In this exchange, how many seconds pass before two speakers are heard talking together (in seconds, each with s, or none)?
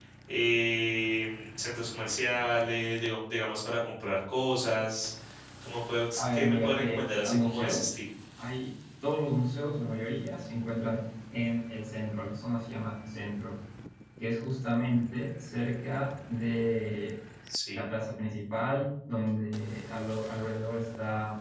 6.1 s